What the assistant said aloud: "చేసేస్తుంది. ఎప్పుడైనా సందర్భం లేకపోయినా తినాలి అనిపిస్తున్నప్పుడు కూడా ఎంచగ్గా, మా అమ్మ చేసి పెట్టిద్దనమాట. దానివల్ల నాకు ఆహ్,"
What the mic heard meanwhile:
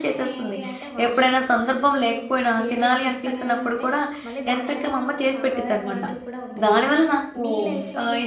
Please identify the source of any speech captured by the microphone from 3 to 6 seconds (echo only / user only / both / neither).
both